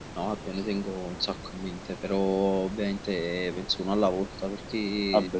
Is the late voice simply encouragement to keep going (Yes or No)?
Yes